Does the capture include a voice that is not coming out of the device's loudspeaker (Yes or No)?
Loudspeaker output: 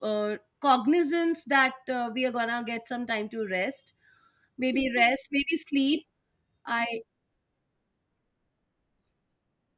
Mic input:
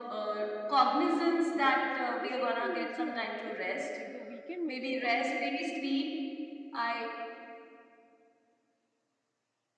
Yes